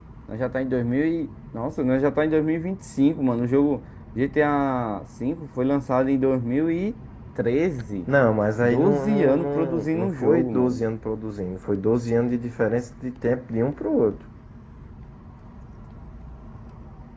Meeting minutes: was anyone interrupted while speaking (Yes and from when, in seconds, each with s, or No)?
Yes, from 8.6 s